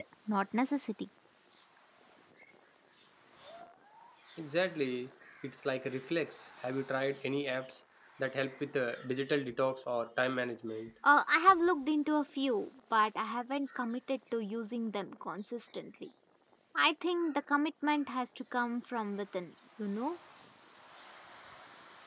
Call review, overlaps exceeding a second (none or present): none